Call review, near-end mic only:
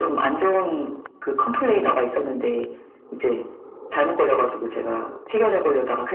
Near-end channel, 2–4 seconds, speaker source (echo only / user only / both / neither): echo only